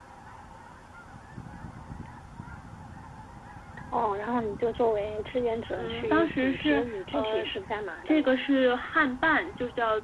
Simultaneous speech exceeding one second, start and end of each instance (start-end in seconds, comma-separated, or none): 5.8-7.4